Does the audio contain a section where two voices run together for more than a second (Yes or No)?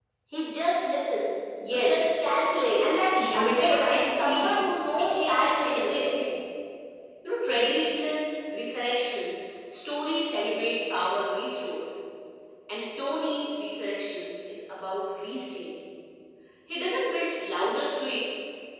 Yes